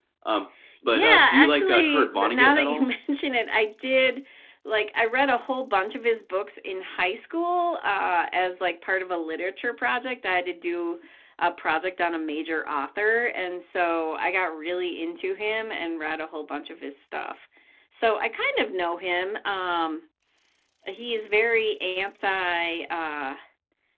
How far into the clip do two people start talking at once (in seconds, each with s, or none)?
0.8 s